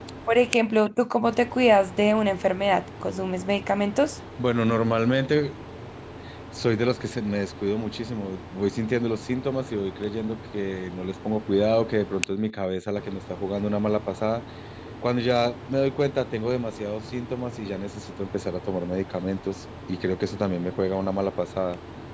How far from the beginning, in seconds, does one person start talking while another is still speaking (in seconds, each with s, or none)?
none